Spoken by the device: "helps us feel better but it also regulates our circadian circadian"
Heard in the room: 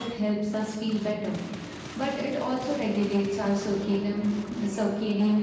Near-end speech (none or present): none